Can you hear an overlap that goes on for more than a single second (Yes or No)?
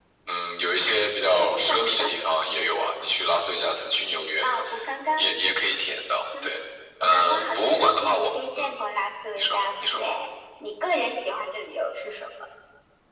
Yes